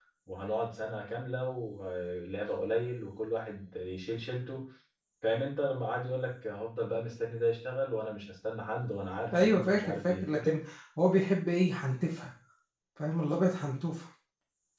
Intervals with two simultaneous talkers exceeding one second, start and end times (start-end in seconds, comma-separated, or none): 9.3-10.6